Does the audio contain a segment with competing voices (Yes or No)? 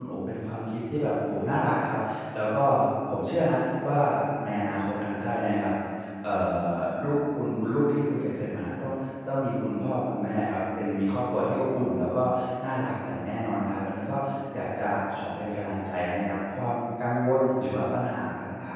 No